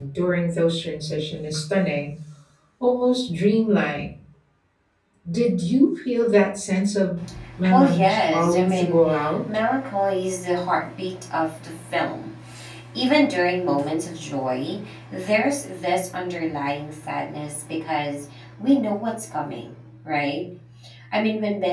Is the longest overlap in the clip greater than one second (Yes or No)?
Yes